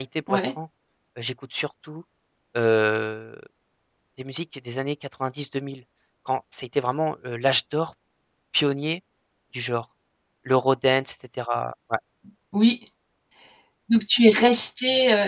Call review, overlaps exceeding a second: none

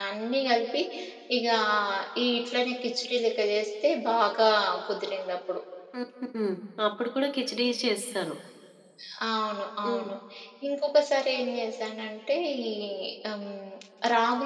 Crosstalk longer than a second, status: none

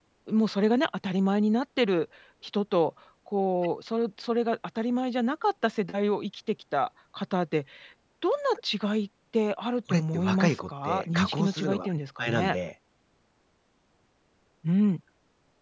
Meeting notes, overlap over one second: present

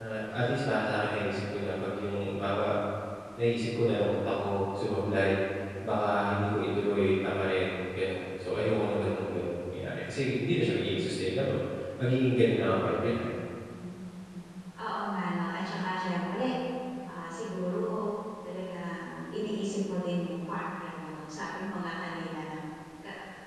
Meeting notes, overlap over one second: none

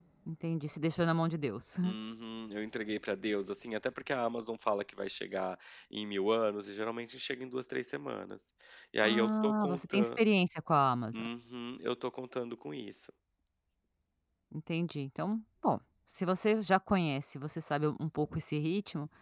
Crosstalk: present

